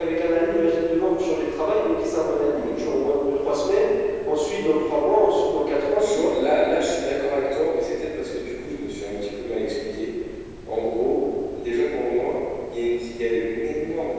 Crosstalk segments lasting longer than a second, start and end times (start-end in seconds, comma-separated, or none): none